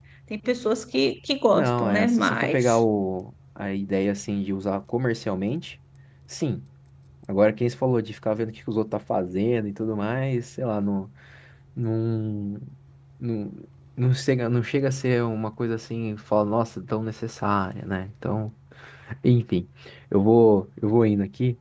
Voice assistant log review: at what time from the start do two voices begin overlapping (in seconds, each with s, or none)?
1.5 s